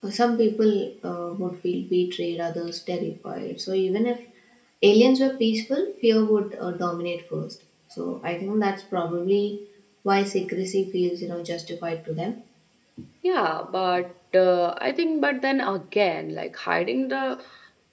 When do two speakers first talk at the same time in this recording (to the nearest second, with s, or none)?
none